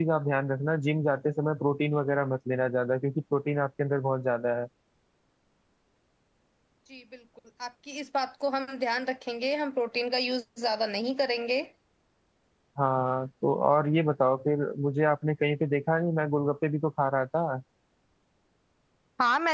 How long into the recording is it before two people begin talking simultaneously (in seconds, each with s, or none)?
none